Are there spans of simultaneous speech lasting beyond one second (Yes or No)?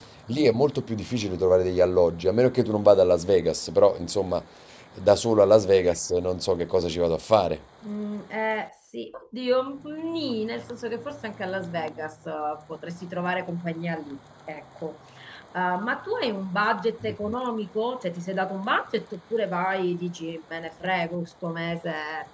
No